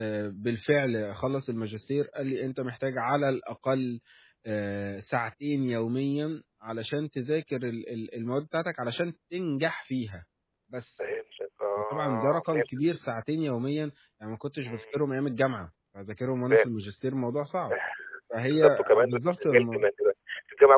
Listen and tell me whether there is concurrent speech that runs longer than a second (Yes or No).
Yes